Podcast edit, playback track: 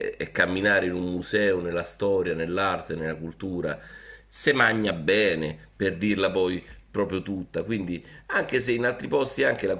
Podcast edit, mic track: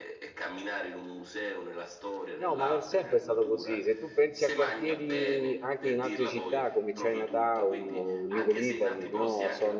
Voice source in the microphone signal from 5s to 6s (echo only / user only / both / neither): both